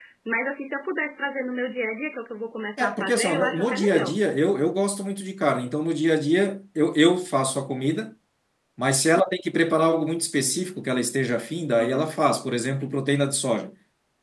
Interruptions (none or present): present